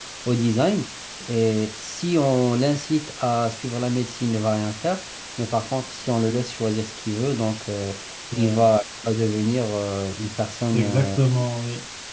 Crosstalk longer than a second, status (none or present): none